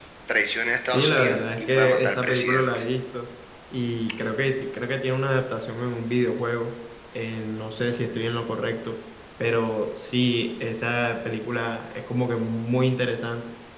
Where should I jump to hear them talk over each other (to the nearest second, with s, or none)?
1 s